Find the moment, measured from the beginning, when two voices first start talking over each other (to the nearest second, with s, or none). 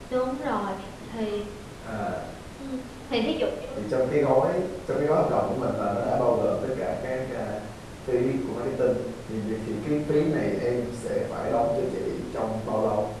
none